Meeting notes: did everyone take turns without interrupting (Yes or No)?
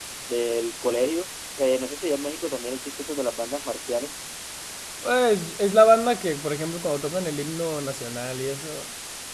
Yes